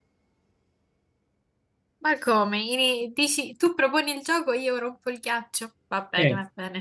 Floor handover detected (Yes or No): Yes